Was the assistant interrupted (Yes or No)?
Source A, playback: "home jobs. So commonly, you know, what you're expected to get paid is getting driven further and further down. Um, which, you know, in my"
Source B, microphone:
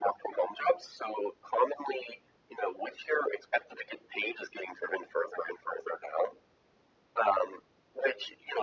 No